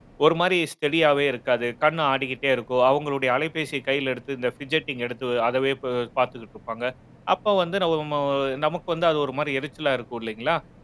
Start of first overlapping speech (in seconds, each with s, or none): none